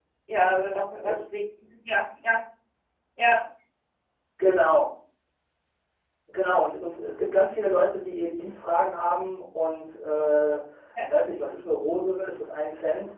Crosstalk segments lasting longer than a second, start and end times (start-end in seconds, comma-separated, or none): none